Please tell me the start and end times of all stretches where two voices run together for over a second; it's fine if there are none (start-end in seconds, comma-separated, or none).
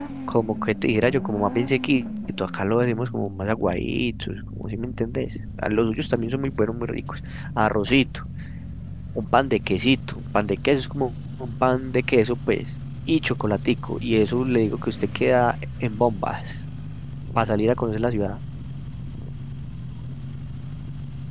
none